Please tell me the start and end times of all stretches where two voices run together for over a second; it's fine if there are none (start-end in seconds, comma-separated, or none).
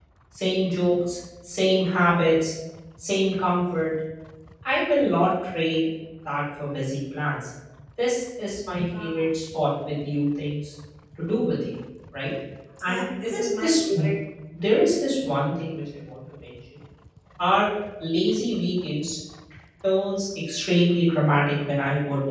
12.9-14.1